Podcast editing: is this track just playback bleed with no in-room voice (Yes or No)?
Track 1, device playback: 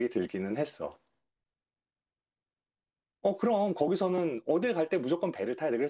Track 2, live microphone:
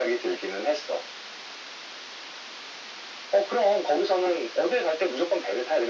Yes